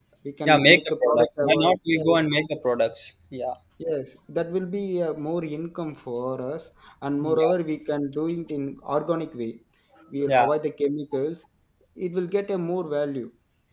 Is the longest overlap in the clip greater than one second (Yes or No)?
Yes